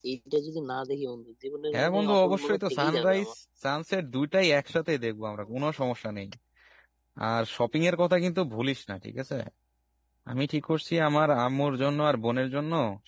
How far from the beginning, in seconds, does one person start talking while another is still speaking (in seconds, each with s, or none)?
1.7 s